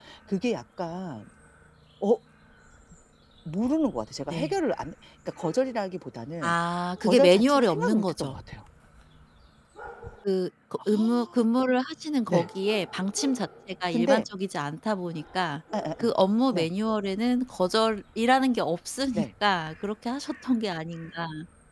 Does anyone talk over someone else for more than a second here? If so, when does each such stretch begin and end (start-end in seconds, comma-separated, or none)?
7.0-8.3